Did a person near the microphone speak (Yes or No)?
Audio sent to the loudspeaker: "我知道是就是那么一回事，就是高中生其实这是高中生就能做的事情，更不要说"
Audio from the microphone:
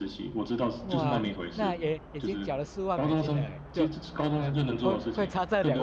Yes